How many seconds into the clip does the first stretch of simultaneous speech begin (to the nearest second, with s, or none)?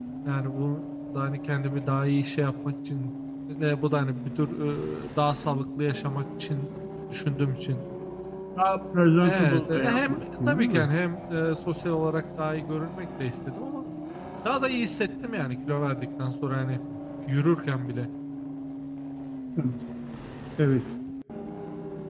9 s